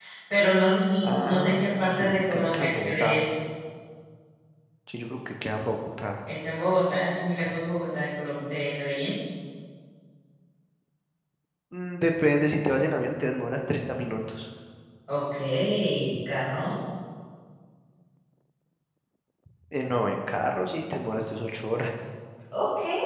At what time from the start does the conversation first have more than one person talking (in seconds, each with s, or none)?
1.0 s